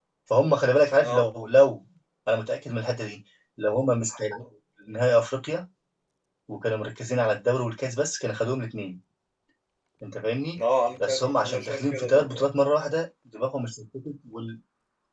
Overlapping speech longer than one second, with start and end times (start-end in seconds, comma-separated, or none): 11.1-12.5